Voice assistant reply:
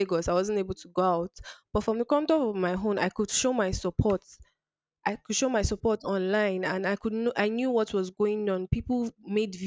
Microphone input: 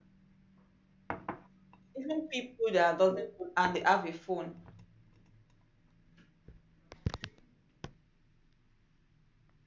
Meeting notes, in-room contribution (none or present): present